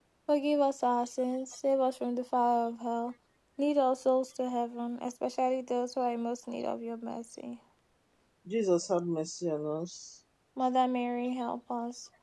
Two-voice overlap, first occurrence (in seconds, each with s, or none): none